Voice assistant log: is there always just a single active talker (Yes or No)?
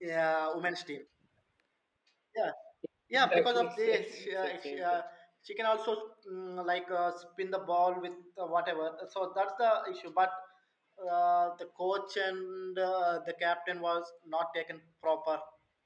No